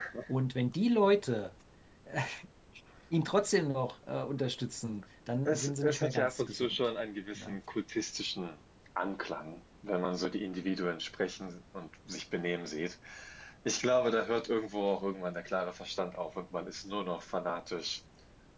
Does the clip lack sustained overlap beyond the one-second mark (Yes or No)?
No